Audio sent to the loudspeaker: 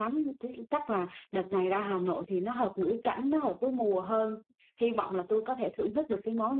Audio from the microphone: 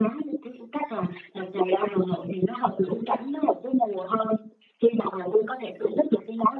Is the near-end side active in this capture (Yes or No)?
No